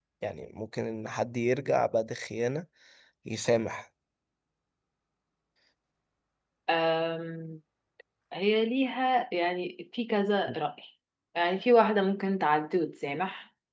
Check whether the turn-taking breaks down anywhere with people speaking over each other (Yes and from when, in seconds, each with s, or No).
No